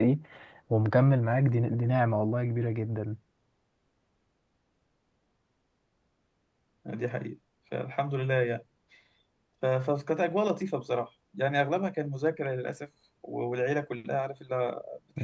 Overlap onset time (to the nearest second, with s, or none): none